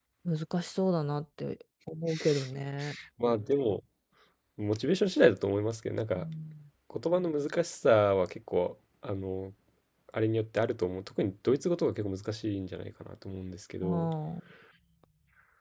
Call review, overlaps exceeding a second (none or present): none